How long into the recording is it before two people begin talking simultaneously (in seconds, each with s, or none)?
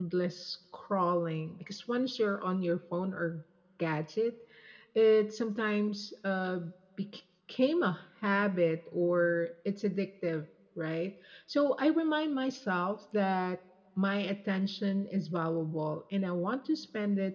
none